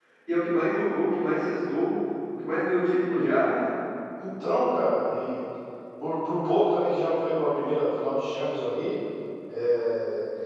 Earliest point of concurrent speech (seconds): none

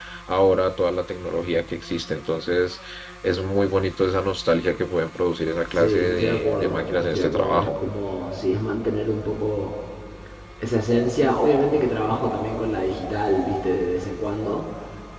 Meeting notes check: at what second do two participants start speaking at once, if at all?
6 s

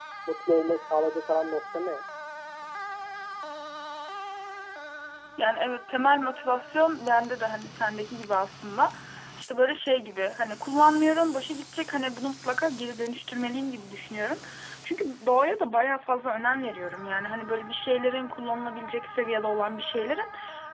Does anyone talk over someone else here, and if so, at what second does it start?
none

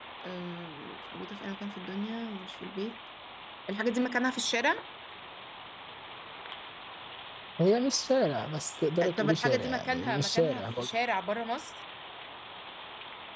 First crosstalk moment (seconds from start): 9 s

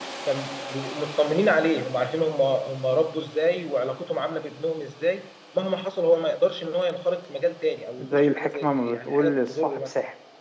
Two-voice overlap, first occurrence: 8 s

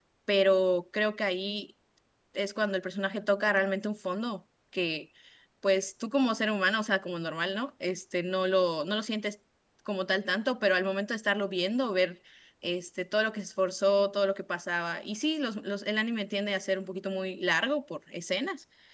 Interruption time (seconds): none

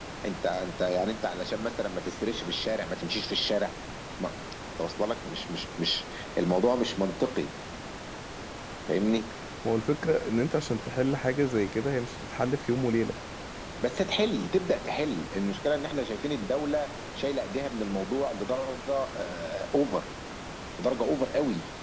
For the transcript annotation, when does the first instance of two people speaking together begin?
none

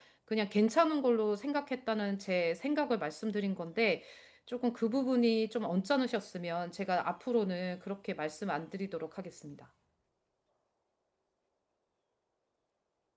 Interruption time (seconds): none

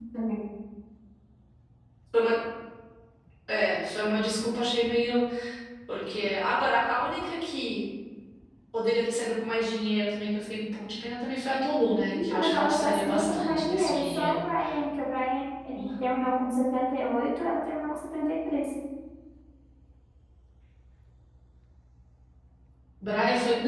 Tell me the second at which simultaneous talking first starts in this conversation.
12 s

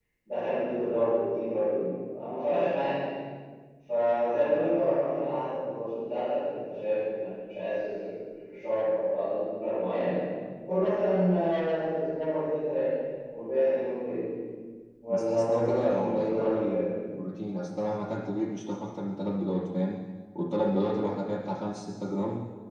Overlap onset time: 15 s

